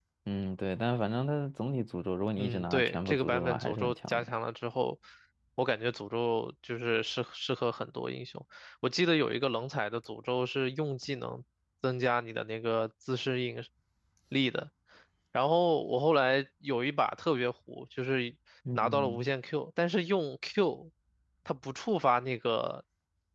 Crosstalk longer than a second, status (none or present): present